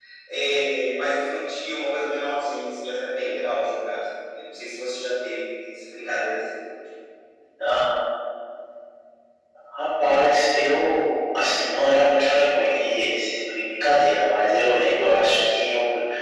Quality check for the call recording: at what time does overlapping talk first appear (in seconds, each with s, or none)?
none